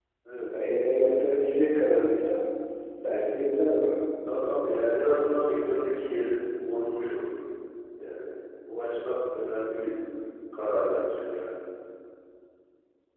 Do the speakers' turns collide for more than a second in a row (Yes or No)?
No